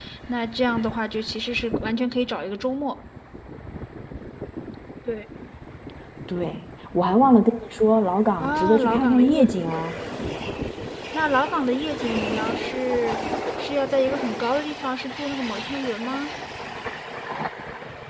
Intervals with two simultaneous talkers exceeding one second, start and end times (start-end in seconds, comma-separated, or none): 8.4-9.8